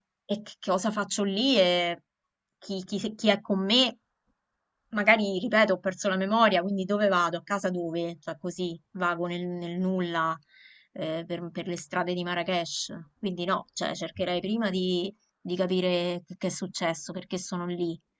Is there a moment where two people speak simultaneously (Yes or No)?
No